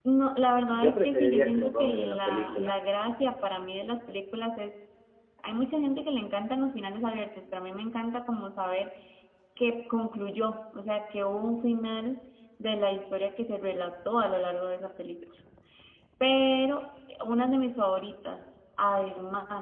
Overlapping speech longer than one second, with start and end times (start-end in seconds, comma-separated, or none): 0.7-2.7